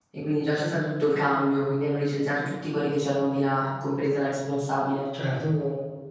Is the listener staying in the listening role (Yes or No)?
Yes